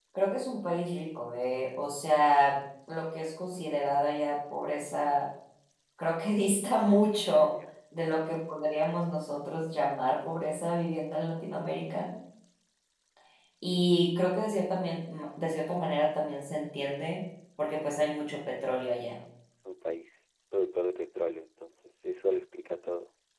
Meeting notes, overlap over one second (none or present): none